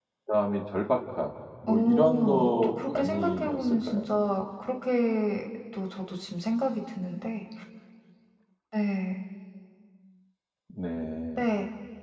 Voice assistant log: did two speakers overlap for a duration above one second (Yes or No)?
Yes